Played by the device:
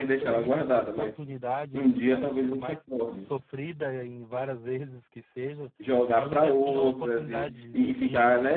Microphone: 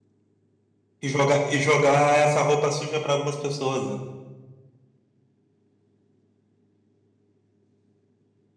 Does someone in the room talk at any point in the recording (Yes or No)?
Yes